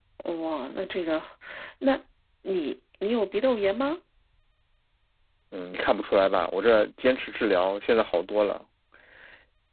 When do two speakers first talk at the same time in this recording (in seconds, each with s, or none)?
none